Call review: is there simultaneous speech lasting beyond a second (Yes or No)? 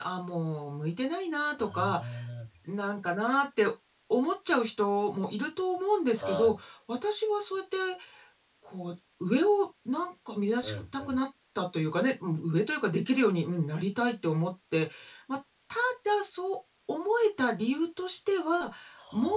No